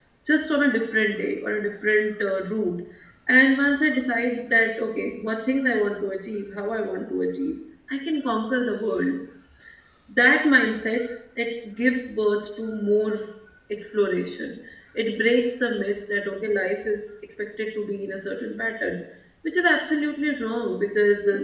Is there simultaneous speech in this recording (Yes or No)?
No